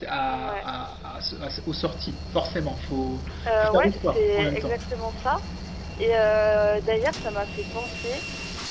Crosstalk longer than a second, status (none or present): present